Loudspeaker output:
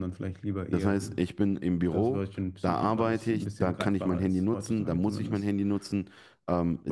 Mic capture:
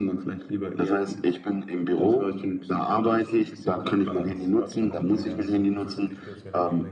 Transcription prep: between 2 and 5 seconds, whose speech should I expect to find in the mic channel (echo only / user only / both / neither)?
both